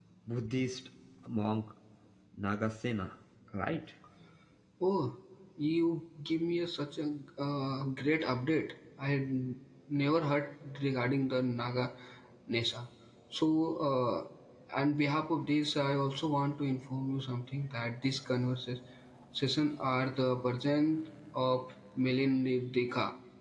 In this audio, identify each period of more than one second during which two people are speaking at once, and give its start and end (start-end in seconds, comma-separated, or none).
none